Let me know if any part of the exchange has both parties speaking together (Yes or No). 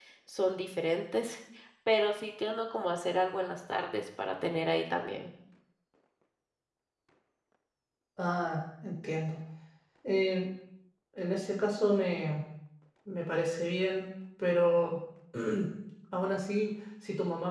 No